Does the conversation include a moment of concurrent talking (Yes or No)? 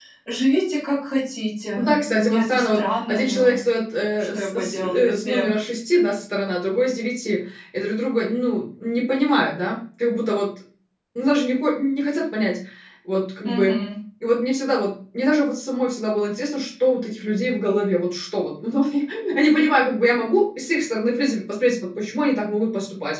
Yes